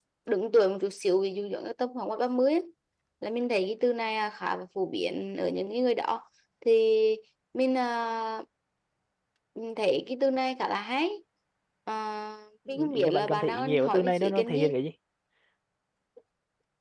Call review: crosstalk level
present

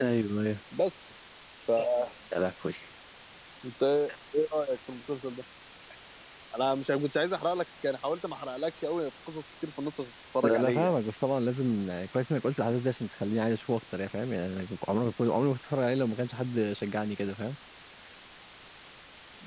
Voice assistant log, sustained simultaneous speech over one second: none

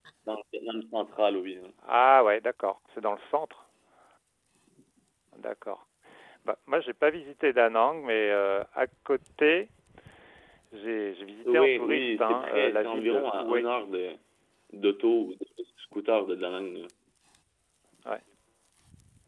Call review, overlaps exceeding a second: present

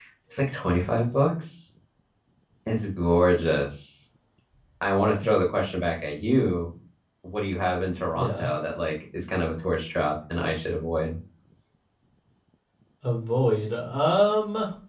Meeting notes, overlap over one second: none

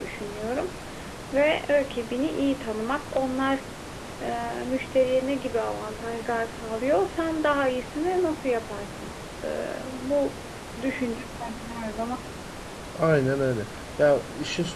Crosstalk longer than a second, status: none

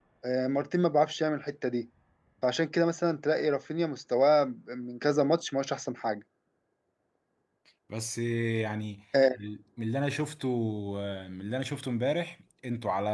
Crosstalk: none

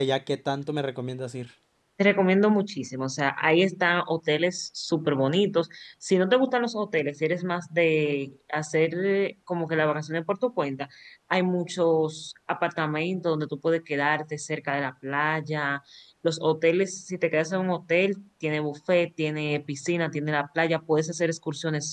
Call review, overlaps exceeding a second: none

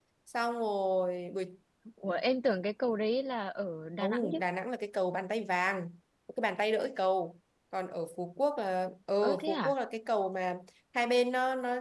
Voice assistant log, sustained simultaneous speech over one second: none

